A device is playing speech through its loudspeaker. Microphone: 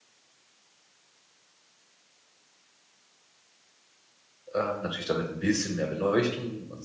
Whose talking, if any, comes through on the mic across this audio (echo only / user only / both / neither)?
user only